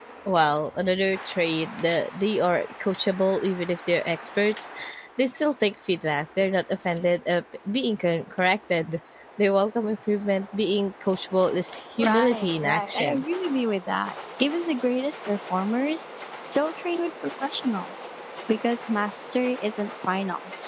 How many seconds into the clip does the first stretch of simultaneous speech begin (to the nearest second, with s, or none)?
12 s